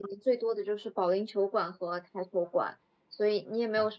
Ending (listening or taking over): listening